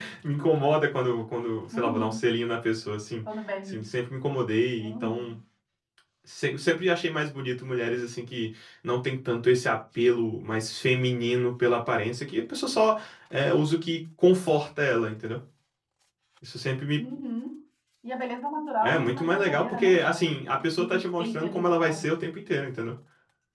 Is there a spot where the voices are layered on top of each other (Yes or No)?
Yes